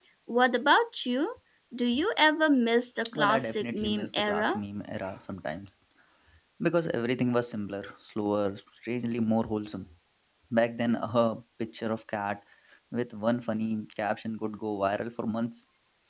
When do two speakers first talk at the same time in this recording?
3.0 s

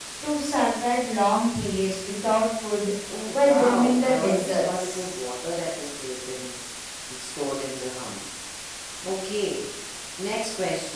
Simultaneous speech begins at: 3.3 s

